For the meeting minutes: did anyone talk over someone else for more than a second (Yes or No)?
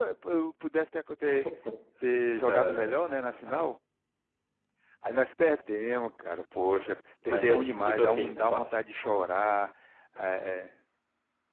Yes